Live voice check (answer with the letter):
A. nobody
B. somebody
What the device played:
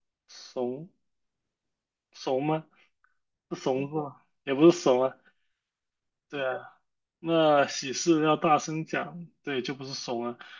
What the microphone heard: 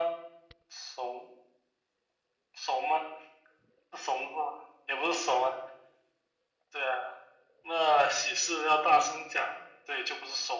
A